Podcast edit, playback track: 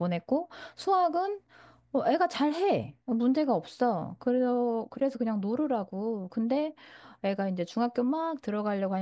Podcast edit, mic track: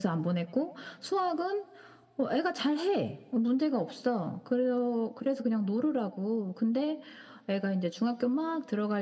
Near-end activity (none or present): none